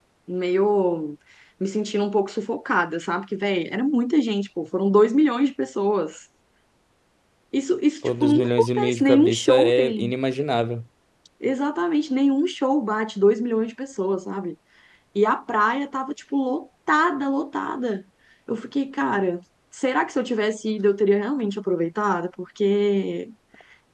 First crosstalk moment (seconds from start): 8 s

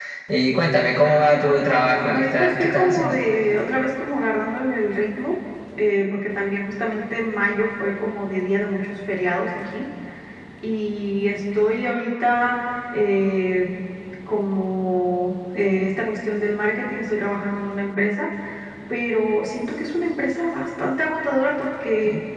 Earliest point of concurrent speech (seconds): 1 s

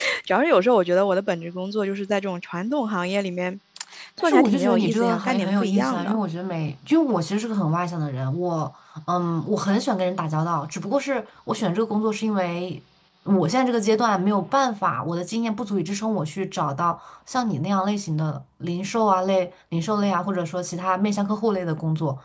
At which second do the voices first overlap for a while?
4 s

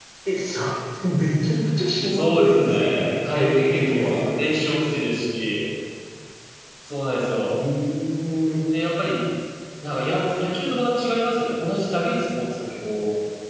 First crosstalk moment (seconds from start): 2 s

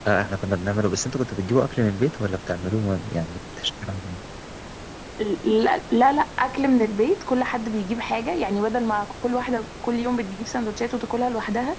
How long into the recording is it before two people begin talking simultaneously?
none

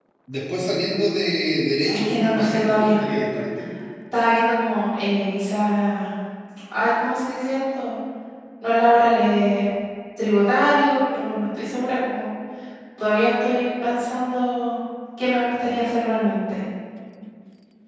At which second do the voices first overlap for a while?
2 s

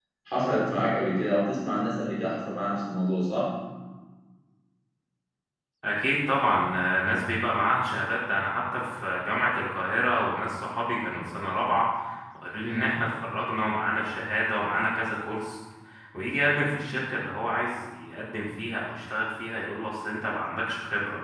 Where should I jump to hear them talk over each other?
none

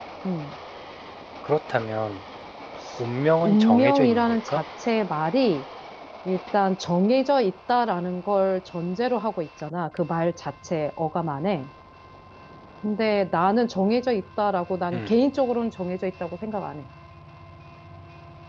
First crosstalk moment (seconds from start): 3 s

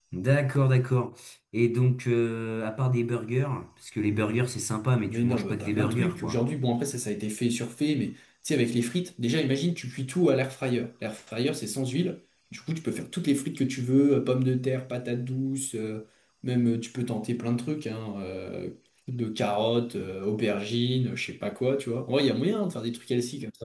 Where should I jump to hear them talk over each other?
5 s

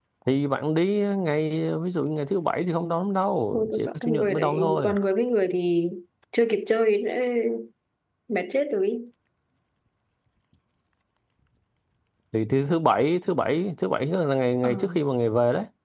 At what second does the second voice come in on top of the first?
4 s

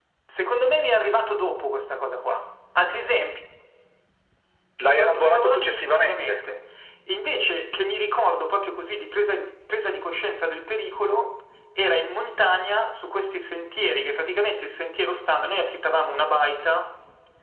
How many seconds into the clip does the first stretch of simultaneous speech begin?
5 s

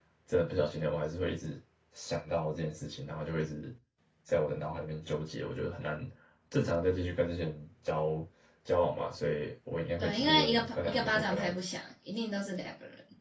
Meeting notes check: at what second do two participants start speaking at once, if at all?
10 s

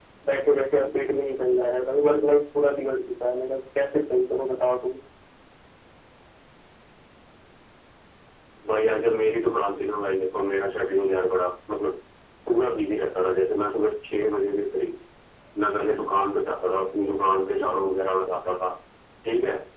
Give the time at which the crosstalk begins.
none

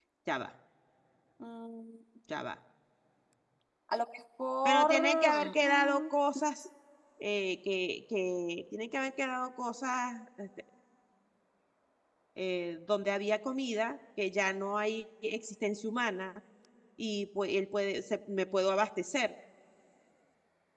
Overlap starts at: 5 s

